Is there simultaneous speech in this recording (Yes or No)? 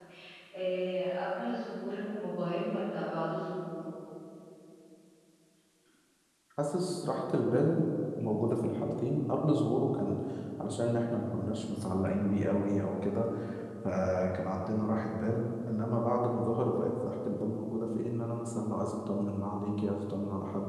No